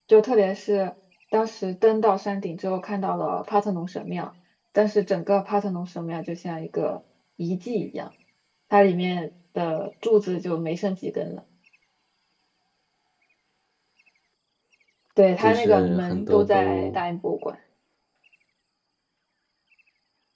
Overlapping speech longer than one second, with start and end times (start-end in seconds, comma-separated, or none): 15.4-17.0